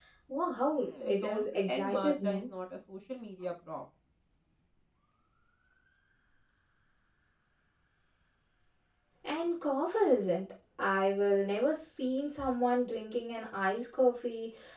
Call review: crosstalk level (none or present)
present